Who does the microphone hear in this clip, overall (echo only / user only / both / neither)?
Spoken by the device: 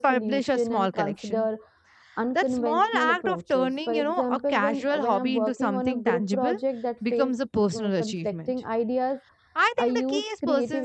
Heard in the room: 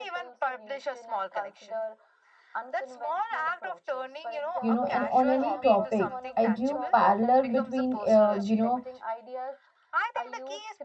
both